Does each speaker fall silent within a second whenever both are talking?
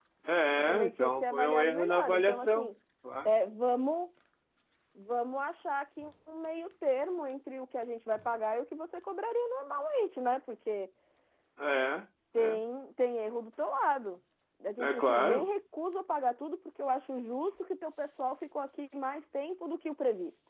No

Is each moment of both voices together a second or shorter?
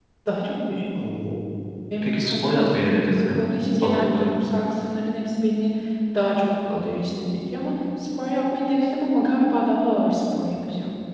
No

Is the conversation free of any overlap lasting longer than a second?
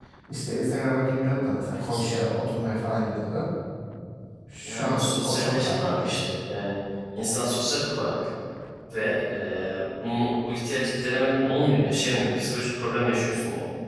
No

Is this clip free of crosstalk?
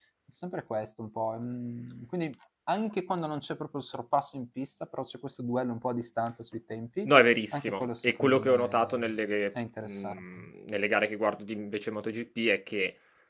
No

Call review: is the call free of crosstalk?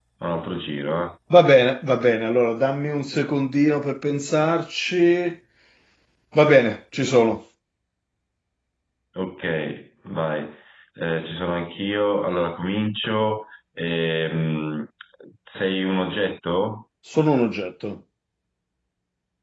Yes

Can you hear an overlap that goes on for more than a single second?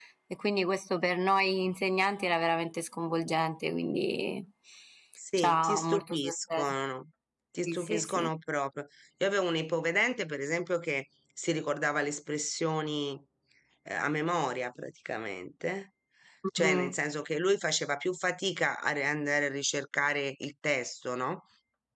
Yes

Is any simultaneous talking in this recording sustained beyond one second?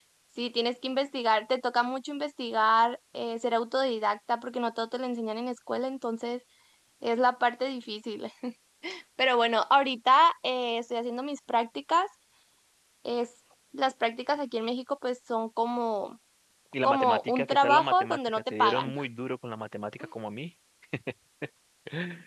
Yes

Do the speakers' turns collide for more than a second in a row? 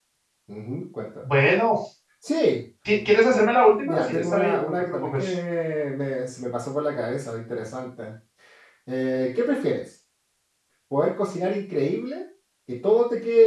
Yes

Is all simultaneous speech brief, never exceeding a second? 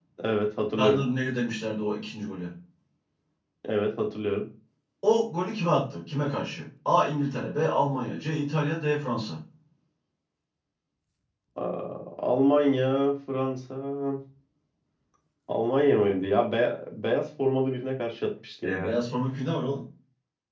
Yes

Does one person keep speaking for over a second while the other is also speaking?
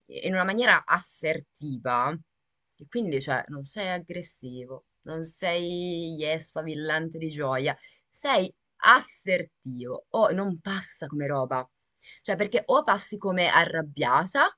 No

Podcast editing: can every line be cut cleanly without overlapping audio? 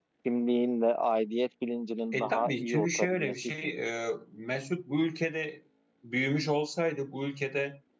No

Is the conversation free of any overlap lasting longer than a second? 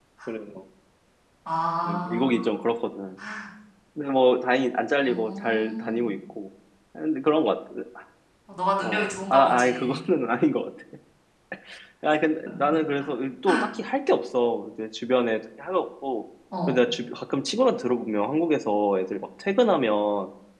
No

